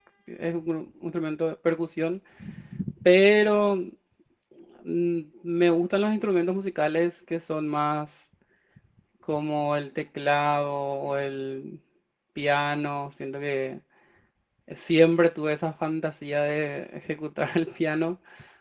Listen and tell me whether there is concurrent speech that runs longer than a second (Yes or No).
No